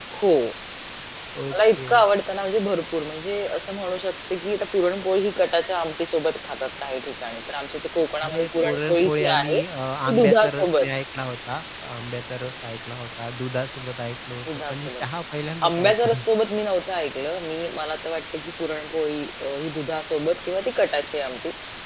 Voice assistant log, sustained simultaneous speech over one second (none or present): present